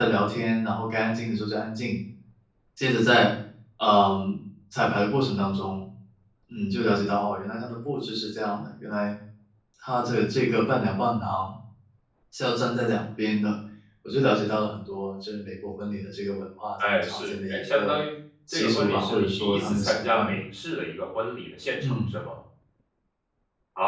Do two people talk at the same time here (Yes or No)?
Yes